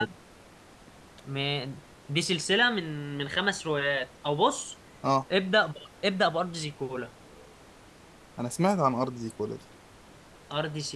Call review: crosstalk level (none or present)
none